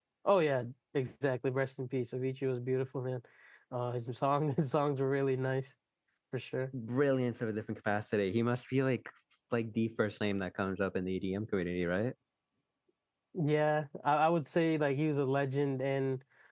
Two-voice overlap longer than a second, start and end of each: none

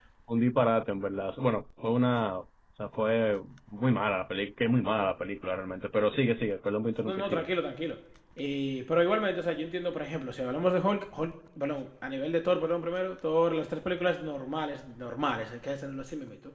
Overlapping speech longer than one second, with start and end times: none

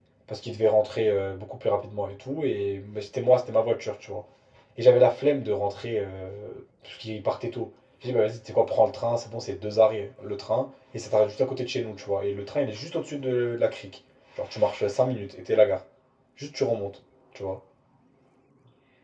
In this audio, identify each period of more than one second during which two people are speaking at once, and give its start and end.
none

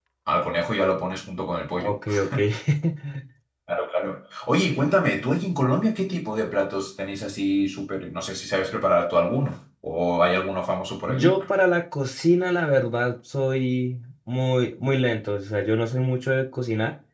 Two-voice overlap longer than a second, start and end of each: none

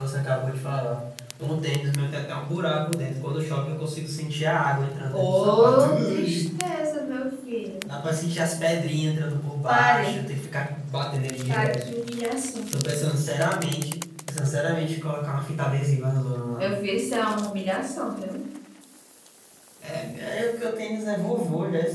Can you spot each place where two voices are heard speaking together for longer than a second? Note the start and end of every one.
5.1-6.4

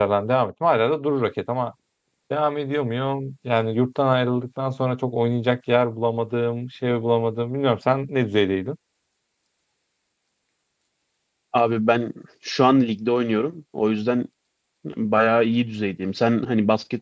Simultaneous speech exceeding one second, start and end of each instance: none

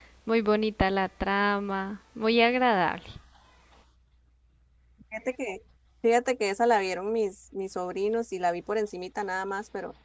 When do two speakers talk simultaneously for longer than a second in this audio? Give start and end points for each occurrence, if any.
none

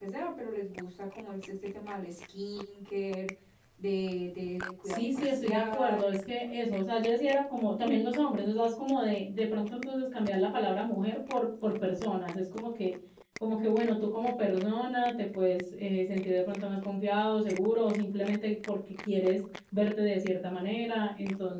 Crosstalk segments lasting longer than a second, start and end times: 4.8-6.2

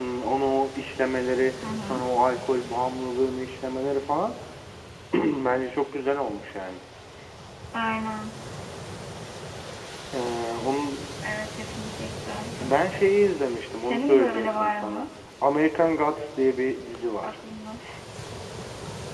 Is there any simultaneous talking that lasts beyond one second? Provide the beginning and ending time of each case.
13.8-15.1

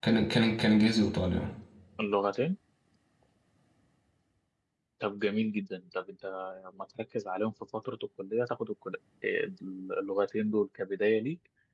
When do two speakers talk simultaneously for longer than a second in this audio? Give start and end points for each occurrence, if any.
none

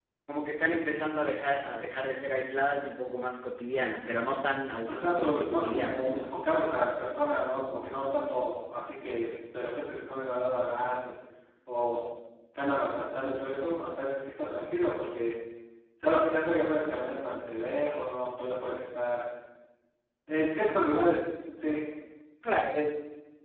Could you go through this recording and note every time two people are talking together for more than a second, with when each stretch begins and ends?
4.9-6.2

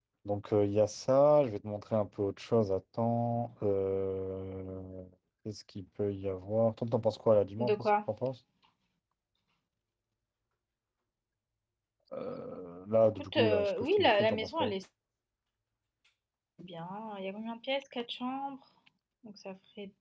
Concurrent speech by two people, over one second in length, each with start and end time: 13.2-14.7

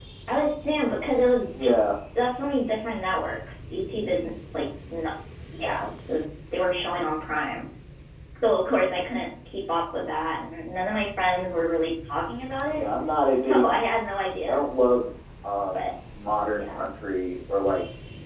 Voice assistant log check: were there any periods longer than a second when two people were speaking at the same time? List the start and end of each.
none

